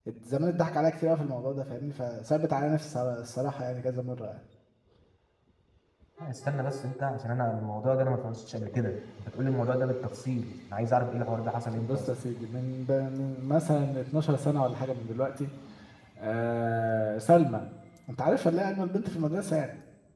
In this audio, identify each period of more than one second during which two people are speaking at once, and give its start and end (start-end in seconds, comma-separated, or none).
none